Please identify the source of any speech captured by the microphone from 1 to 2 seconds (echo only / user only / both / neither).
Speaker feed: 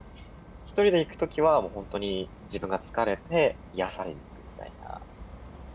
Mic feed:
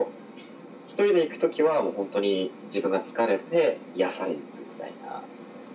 echo only